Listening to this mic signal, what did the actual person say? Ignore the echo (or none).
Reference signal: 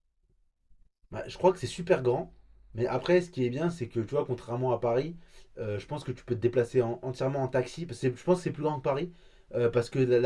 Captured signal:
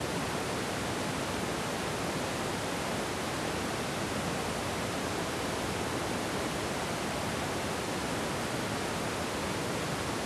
none